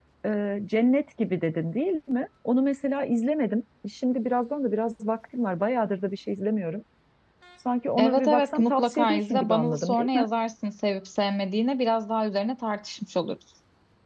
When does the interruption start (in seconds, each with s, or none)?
8.0 s